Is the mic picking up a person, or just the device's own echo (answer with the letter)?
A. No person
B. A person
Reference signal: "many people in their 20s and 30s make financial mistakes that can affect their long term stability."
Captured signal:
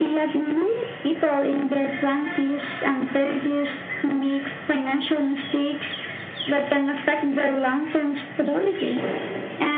A